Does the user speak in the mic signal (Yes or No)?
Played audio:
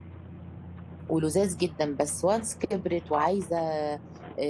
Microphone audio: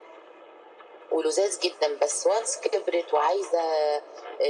No